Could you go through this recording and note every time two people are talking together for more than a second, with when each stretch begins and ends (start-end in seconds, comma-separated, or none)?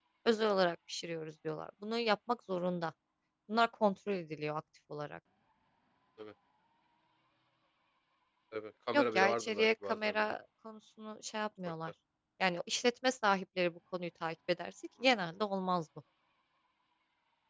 8.9-10.2